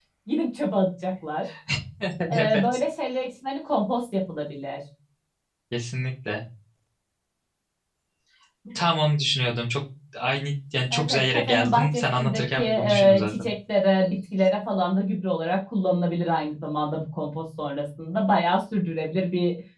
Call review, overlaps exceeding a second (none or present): present